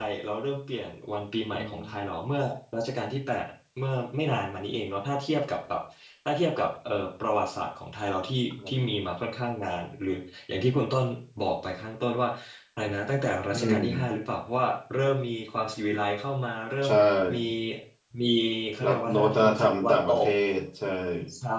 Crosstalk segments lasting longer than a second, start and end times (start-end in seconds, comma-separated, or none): 18.8-20.2